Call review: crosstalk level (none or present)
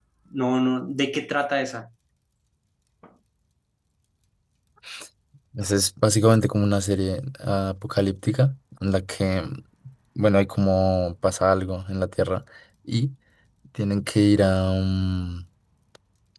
none